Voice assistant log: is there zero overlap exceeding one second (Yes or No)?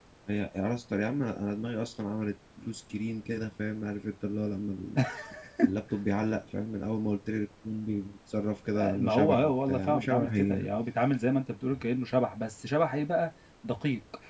No